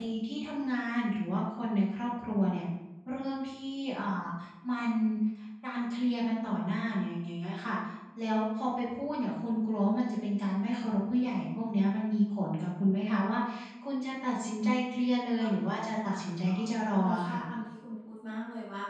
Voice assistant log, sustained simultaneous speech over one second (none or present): present